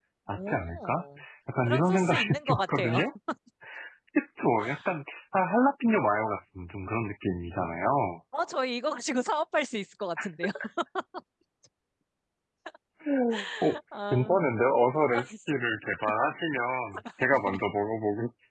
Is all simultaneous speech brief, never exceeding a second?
No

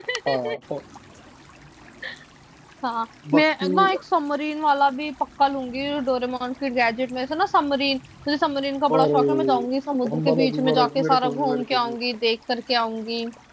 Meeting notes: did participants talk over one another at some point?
Yes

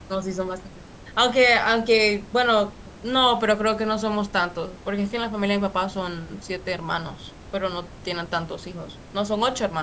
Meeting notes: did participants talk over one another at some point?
No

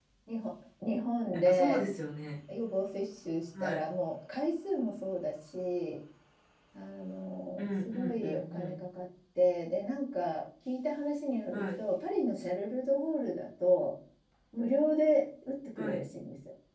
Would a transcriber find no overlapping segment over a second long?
No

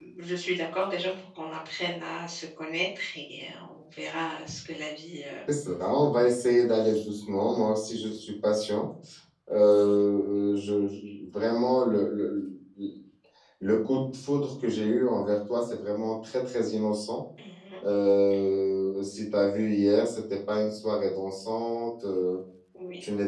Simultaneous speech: No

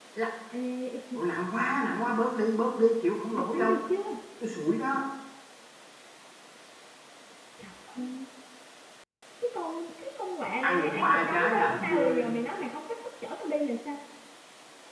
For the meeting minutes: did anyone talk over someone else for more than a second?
Yes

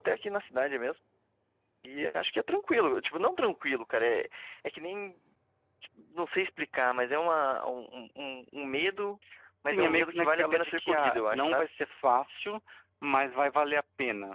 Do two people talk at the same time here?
Yes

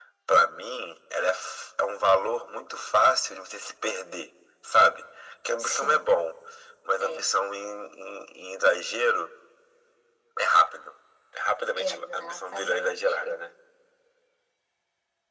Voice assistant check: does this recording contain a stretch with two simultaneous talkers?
Yes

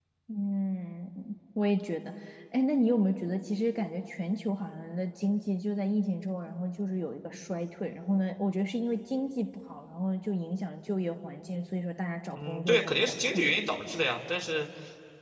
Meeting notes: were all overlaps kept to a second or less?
No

